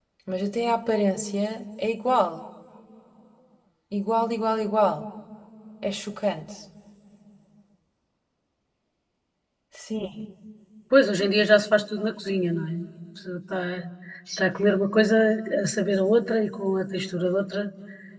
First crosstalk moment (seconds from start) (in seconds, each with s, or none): none